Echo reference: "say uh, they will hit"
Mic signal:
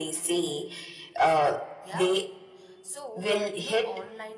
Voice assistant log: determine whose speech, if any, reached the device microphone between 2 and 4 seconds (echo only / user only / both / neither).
both